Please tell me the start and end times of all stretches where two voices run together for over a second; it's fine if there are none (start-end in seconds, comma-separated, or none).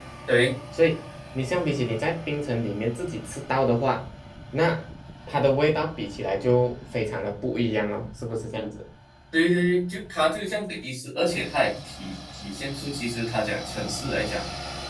none